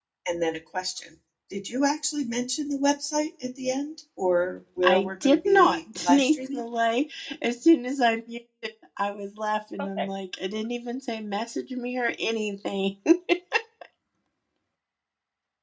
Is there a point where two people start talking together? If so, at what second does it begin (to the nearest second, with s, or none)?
5 s